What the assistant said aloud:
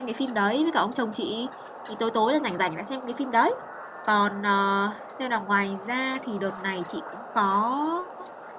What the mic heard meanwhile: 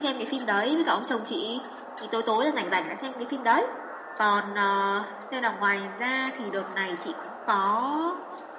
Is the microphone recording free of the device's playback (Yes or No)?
No